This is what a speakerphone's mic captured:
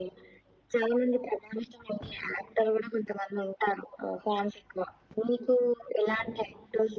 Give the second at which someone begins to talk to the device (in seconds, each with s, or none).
none